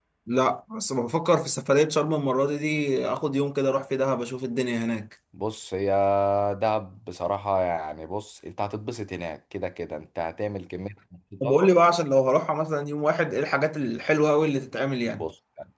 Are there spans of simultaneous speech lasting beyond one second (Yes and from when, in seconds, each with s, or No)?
No